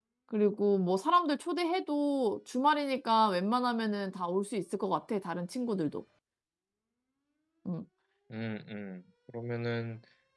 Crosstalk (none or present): none